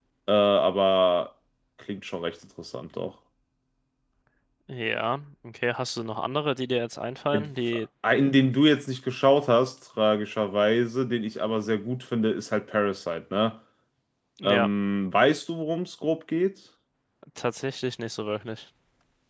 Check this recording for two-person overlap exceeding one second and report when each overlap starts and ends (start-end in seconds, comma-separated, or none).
none